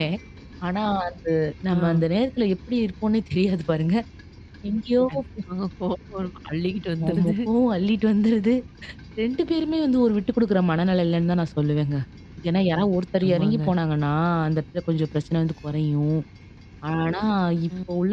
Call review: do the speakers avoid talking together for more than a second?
Yes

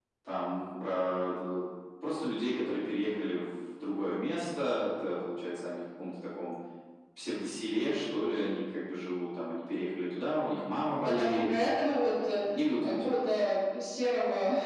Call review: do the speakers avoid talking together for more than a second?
Yes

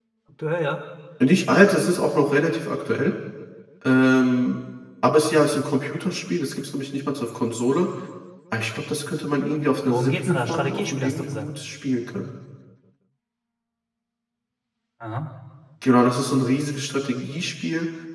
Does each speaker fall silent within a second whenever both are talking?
No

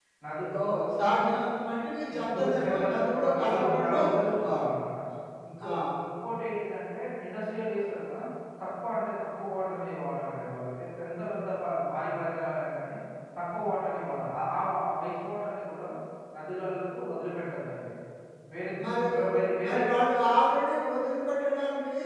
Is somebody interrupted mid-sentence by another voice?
Yes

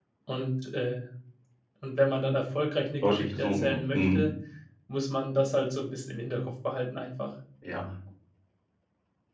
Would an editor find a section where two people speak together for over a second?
Yes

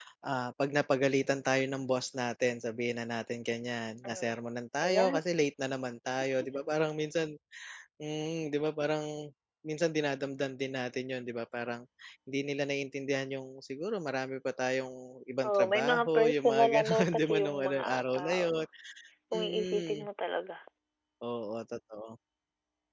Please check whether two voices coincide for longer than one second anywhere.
Yes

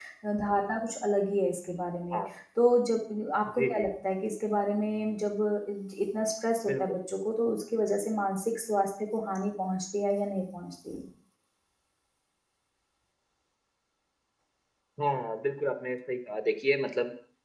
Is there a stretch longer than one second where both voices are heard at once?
No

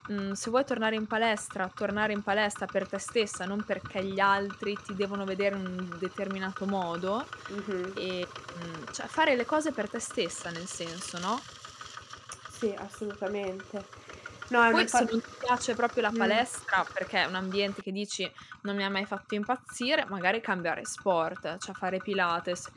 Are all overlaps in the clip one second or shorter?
Yes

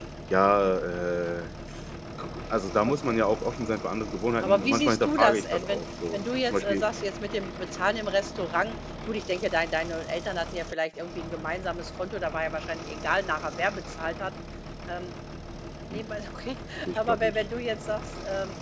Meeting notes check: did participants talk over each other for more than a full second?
Yes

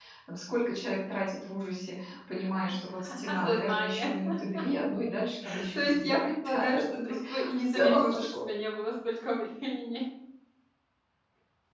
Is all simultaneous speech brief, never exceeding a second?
No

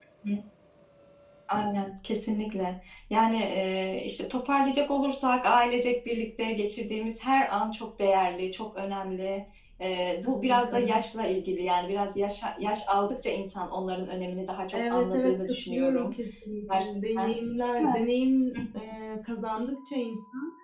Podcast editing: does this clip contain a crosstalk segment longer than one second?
Yes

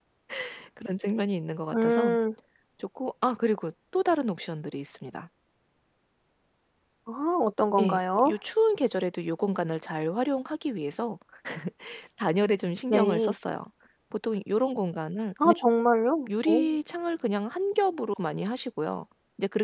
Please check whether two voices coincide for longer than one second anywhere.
No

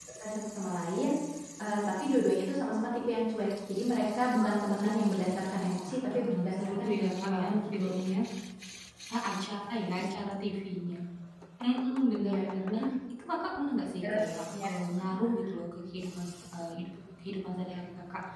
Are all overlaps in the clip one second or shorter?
No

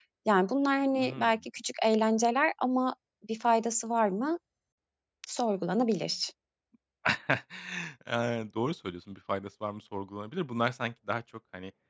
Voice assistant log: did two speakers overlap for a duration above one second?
No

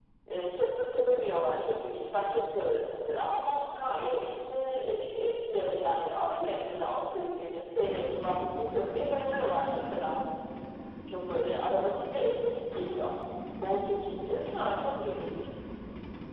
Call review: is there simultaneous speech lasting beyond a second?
No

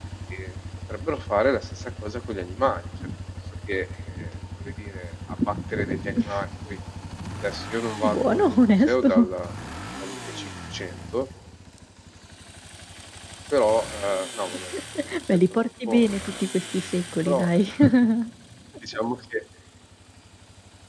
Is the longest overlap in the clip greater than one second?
Yes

